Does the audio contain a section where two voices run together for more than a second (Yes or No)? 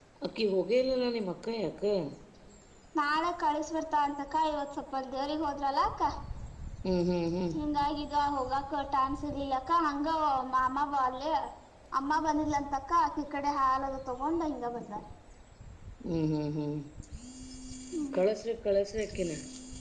No